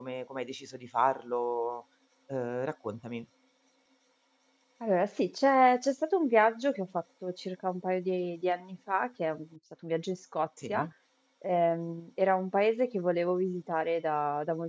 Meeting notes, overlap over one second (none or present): none